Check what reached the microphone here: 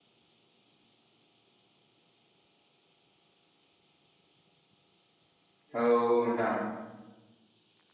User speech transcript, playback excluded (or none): औ औ नोंथां